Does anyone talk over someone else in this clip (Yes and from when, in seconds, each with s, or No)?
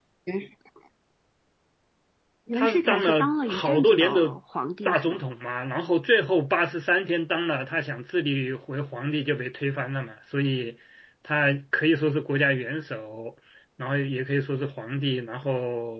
Yes, from 2.5 s